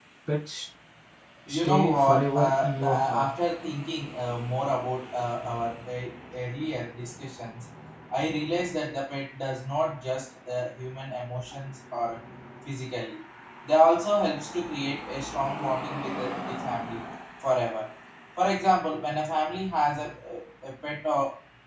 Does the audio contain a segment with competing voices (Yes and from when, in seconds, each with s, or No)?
Yes, from 1.5 s